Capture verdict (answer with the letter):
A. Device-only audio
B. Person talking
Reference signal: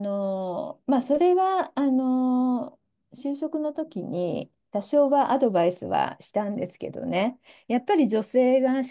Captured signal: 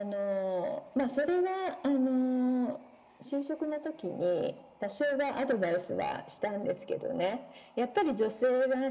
A